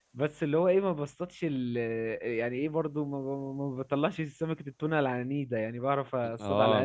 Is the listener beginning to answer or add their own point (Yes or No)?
Yes